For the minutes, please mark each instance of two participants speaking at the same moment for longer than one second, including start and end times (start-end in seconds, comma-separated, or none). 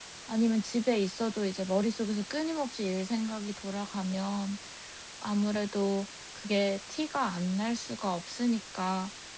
none